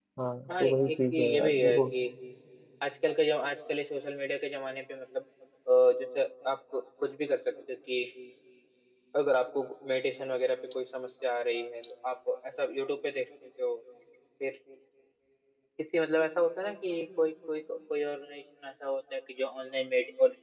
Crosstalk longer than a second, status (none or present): present